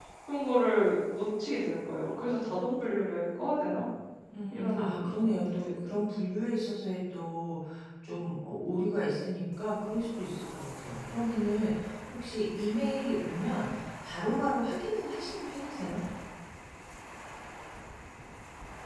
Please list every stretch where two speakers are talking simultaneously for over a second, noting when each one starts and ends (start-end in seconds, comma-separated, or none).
4.5-5.9